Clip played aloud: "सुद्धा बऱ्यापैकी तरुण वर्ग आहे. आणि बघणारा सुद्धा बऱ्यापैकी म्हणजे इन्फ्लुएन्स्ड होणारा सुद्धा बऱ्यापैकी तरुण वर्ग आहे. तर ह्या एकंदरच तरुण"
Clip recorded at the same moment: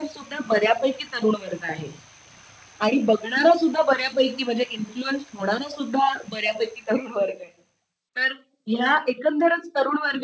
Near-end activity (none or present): none